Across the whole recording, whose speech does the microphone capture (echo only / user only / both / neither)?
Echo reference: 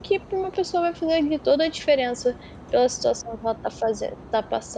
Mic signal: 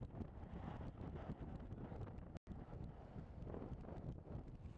neither